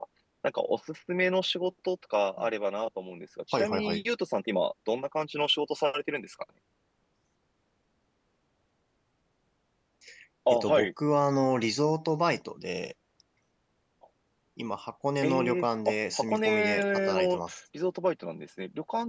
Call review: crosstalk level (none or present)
present